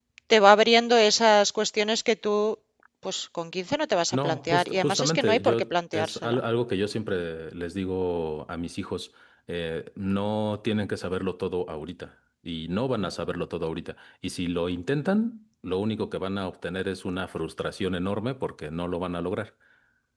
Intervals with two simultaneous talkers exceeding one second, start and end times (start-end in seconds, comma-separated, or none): 4.1-6.4